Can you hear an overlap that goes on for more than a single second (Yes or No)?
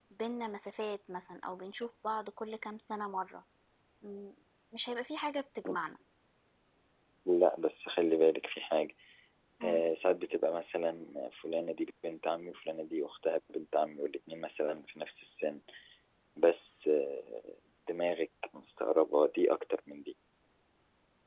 No